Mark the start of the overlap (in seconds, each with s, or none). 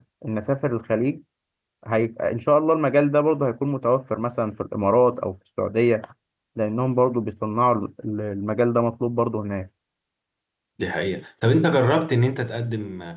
none